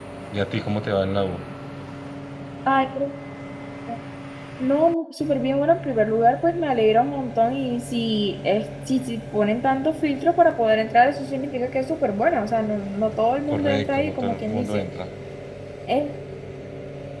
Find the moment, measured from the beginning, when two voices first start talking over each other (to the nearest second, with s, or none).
14 s